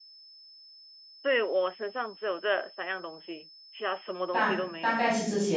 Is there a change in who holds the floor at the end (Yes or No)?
Yes